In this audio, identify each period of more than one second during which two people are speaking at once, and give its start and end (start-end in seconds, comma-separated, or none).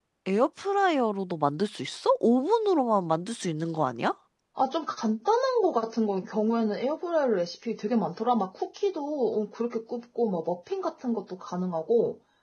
none